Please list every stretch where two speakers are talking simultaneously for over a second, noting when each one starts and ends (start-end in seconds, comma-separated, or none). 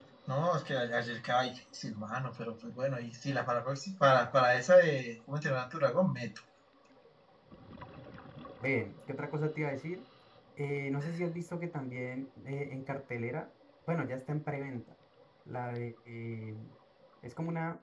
none